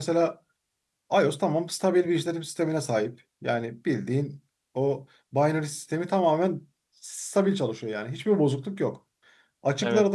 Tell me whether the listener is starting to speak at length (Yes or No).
No